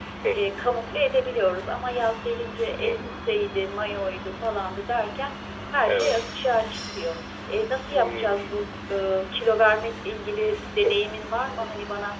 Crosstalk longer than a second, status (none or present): none